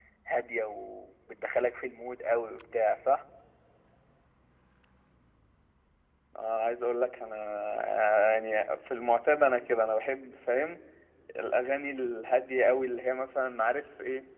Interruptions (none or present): none